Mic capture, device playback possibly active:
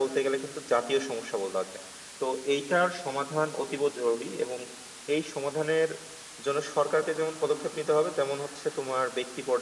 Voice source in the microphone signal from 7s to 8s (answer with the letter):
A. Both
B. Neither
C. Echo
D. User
C